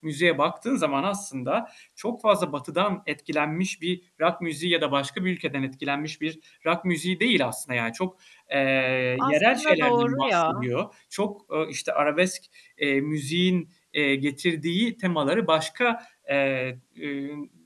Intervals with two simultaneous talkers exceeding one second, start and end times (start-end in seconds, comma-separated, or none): 9.2-10.7